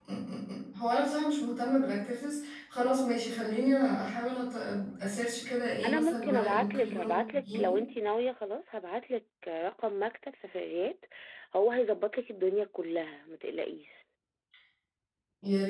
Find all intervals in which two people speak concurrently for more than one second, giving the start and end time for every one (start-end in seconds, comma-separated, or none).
5.8-7.8